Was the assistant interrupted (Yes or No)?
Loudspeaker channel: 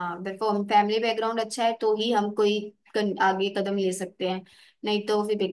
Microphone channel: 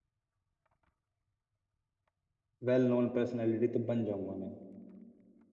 Yes